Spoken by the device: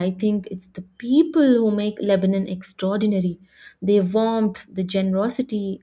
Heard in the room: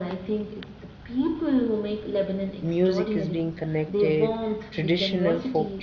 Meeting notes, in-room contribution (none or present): present